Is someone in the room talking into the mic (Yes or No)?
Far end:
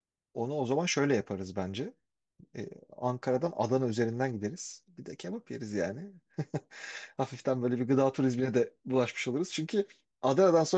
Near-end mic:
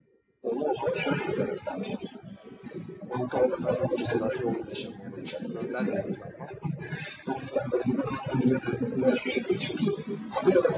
Yes